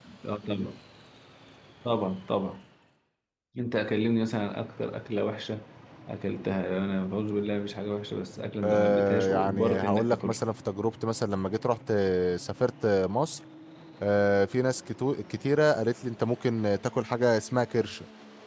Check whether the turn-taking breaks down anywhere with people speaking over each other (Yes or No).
Yes